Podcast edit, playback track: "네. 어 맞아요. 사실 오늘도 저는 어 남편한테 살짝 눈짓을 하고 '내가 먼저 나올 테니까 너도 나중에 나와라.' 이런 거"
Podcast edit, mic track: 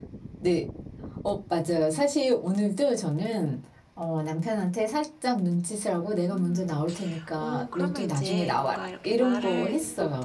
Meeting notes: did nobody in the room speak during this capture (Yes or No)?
No